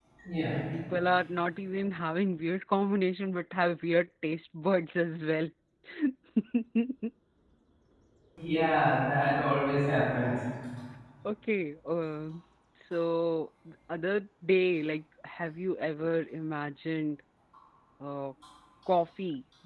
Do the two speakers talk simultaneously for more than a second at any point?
No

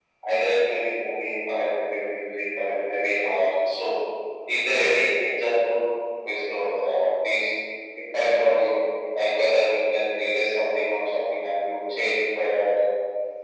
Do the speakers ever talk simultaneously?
No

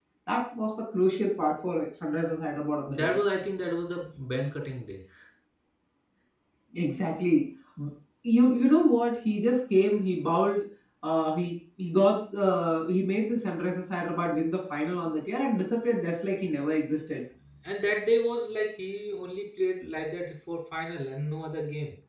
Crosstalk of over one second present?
No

